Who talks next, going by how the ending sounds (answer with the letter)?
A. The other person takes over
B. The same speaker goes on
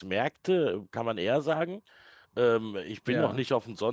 B